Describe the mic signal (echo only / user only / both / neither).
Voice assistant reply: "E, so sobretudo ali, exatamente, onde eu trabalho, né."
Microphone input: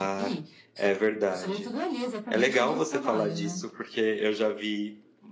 both